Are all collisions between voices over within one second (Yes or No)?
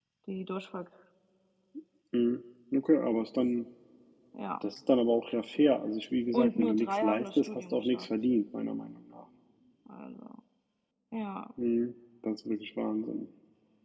No